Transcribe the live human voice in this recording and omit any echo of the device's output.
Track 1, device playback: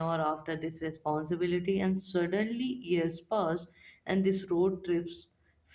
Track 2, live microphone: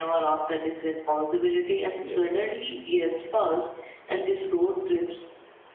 Yes.

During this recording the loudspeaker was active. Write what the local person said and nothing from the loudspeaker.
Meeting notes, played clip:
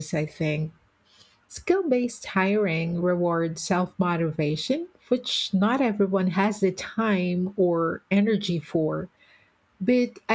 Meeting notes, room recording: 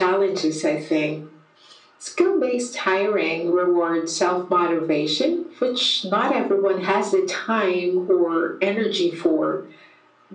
none

